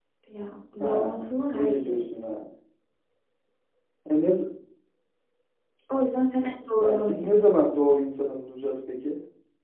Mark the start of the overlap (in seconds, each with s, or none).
0.8 s